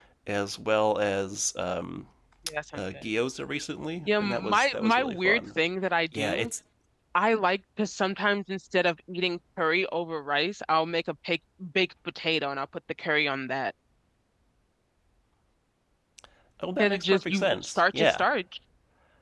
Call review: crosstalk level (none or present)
present